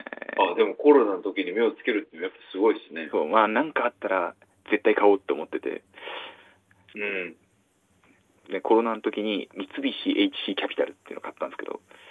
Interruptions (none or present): none